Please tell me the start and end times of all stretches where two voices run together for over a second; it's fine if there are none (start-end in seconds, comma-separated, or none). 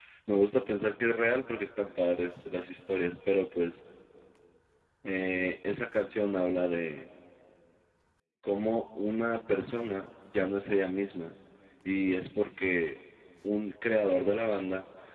none